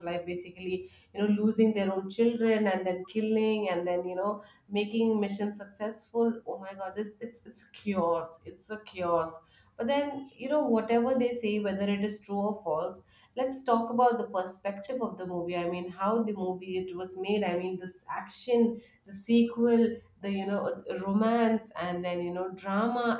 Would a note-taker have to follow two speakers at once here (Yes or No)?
No